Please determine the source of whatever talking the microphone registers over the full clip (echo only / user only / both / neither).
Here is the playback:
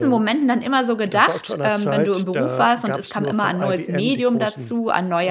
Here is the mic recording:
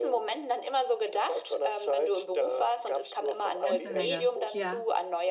both